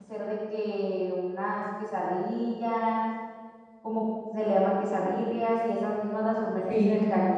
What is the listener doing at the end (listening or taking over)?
listening